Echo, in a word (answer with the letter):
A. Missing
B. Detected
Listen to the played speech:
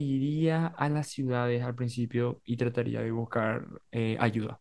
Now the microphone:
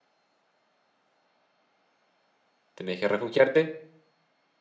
A